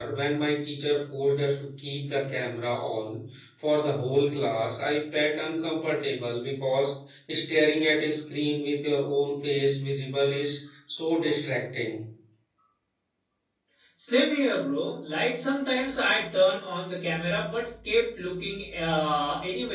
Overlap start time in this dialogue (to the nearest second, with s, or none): none